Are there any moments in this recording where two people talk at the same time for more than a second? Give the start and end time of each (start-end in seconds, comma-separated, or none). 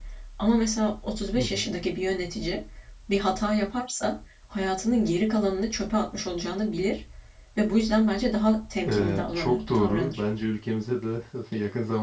8.9-10.2